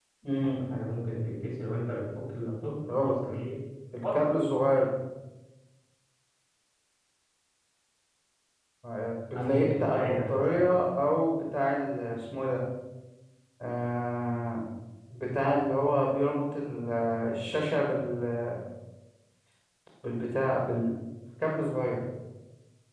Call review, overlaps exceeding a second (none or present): present